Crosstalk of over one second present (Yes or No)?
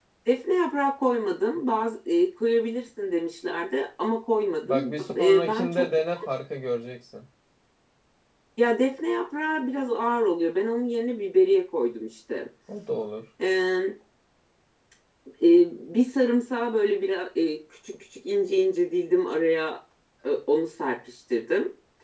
Yes